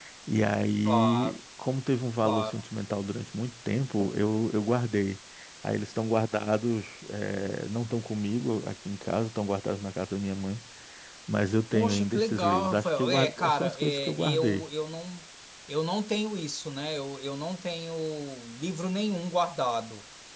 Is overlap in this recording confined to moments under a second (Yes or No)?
No